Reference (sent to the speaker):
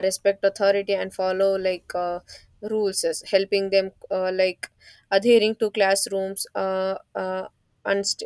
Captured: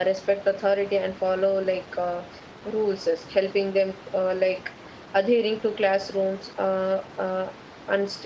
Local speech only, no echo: none

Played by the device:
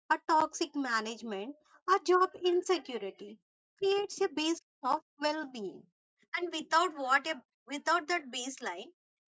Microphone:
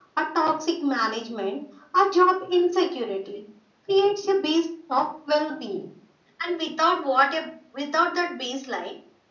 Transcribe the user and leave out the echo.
none

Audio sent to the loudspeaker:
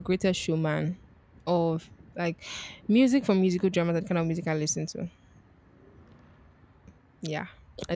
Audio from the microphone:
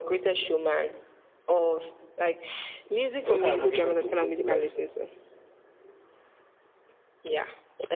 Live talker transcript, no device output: So what kind of like?

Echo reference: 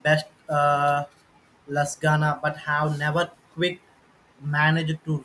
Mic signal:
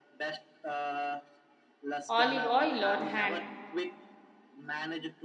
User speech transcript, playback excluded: olive oil on hand.

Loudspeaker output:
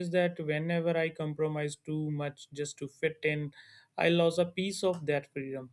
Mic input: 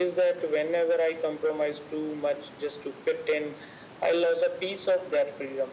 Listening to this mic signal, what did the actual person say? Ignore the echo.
none

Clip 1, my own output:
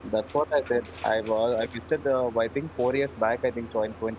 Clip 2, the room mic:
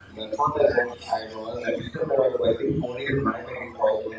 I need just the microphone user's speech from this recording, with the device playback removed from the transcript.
none

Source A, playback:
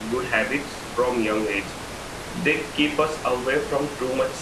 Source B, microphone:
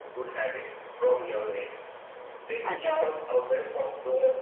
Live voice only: and uh,

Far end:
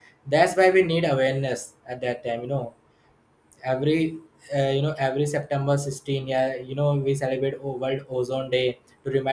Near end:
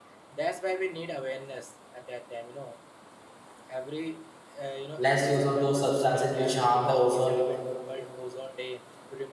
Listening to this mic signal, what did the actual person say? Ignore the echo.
less use of those substances which harm the ozone

